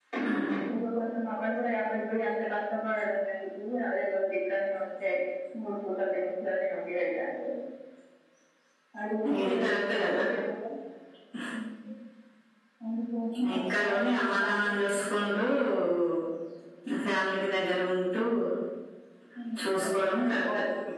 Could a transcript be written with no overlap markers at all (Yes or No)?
No